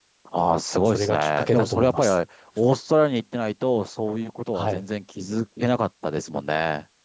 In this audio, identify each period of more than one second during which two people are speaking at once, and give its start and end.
0.7-2.2

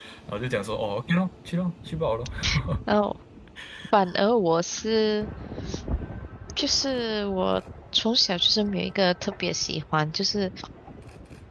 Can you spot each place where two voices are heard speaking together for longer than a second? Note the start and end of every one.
none

